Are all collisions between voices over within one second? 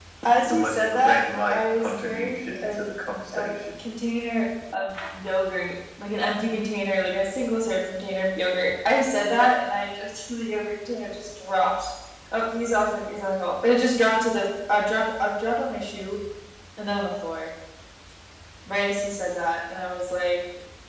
No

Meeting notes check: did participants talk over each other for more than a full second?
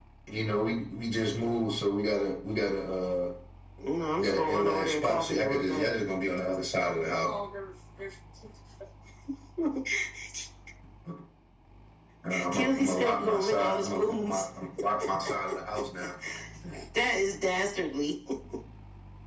Yes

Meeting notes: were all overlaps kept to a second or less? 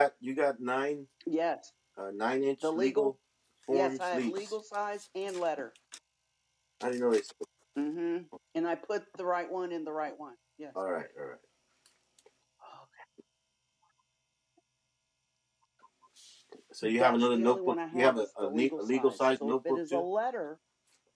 No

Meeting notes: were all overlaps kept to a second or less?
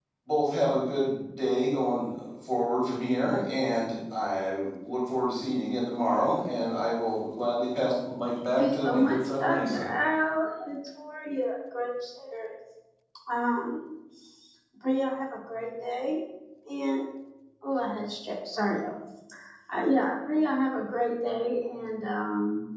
No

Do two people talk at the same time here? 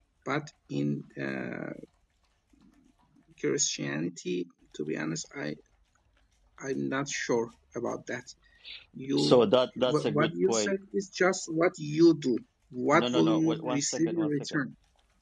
Yes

